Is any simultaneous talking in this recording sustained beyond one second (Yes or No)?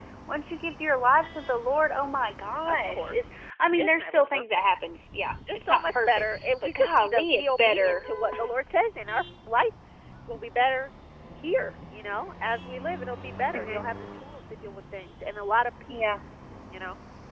Yes